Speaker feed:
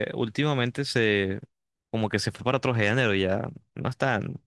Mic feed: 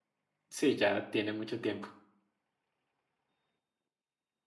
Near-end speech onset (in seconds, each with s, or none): 0.5 s